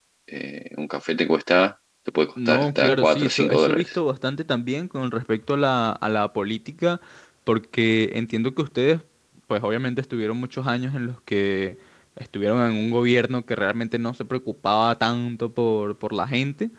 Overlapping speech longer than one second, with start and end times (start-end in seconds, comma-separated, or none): 2.5-4.0